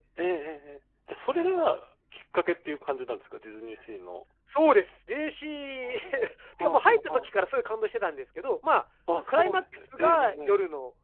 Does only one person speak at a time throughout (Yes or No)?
No